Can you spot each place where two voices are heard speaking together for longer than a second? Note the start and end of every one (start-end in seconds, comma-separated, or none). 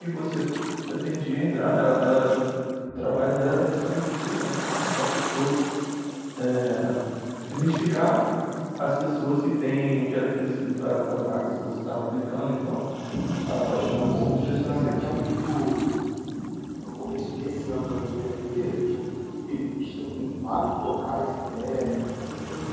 13.5-15.2